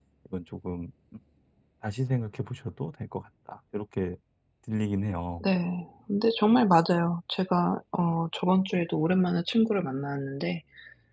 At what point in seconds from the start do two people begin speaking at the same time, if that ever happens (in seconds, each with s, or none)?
none